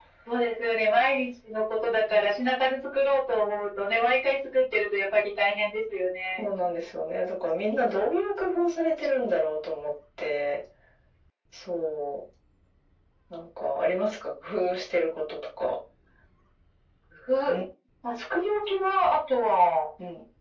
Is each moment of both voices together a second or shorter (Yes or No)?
Yes